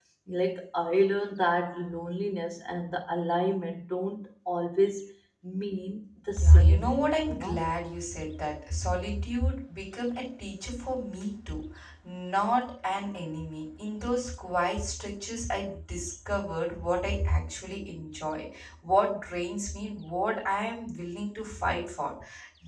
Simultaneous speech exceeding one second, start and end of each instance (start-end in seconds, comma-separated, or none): 6.4-7.6